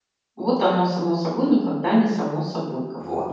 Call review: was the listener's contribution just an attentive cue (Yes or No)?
No